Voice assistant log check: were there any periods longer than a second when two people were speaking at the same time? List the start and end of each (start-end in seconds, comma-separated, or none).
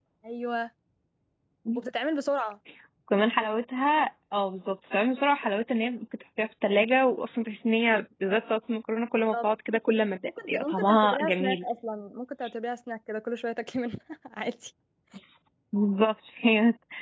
10.3-11.6